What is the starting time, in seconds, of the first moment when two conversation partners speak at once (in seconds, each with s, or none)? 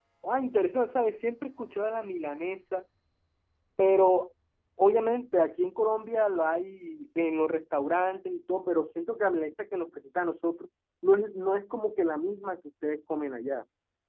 none